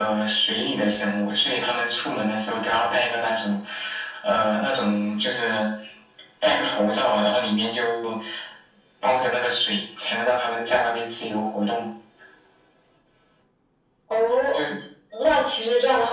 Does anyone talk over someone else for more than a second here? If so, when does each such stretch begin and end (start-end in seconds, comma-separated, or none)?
none